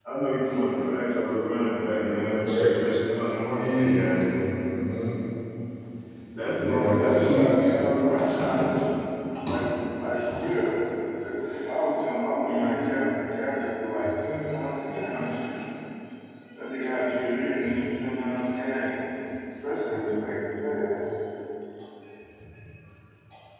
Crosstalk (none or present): present